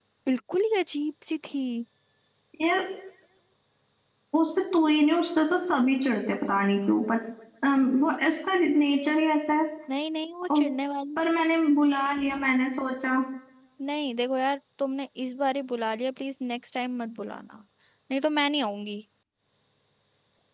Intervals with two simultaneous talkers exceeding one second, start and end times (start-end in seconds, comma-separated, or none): none